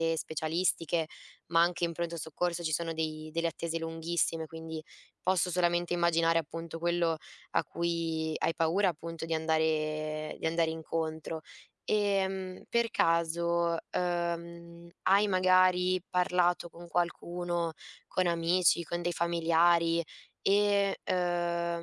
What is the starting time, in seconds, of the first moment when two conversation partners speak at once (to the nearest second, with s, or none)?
none